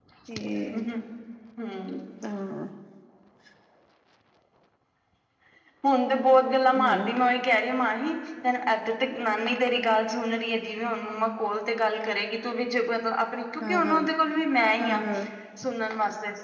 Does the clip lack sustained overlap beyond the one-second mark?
Yes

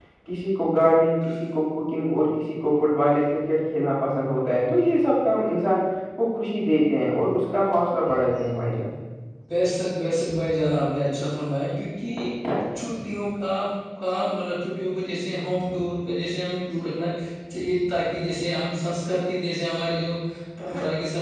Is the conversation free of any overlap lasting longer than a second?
Yes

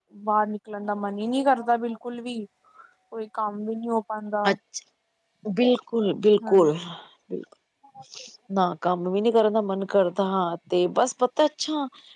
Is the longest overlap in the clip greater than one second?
No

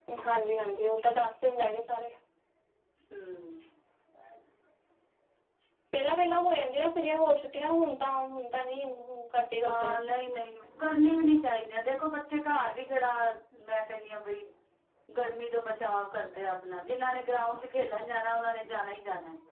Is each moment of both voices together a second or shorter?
Yes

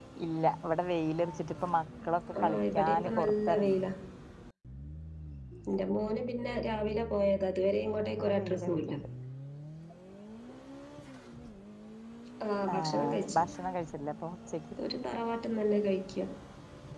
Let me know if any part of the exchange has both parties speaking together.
Yes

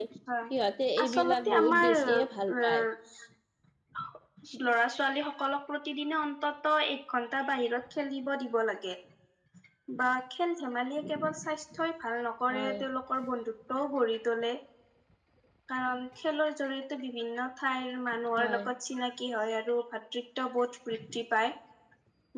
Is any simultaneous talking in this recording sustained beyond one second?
Yes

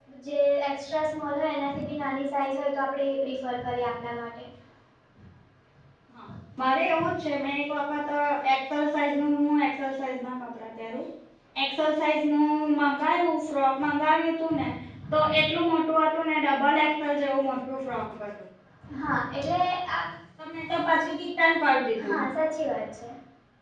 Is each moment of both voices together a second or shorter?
Yes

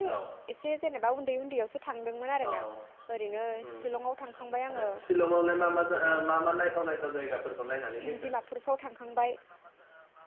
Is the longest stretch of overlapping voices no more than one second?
Yes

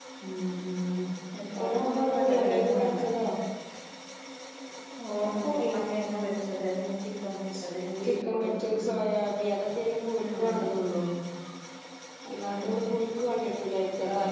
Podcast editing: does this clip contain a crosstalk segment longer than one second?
Yes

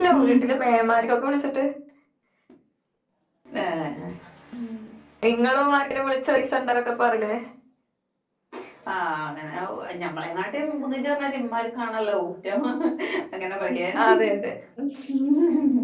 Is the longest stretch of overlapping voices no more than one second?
Yes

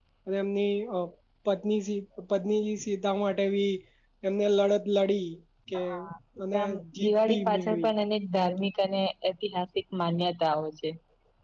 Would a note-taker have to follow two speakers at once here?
Yes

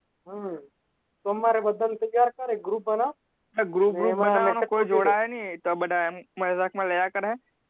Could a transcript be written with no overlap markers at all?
No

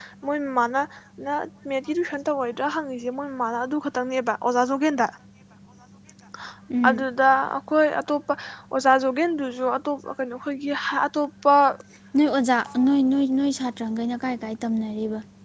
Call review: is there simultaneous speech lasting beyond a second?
No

